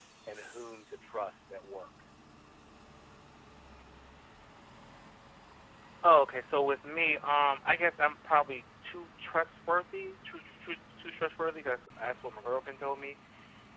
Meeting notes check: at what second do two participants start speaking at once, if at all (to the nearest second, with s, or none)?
none